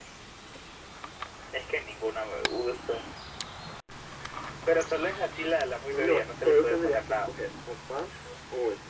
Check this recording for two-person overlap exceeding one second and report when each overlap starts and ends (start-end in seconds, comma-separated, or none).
5.9-7.3